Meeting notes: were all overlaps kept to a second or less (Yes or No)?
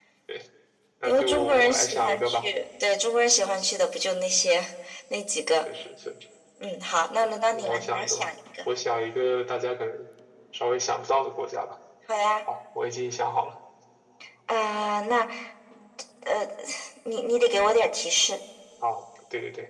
No